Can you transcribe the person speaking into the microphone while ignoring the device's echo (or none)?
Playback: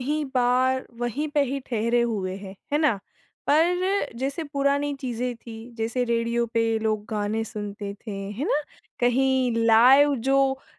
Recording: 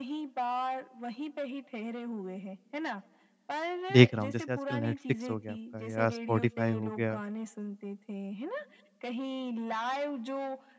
देख रहा हूँ जैसे आजकल नेटफ्लिक्स हो गया आपका या स्पॉटिफ़ाई हो गया।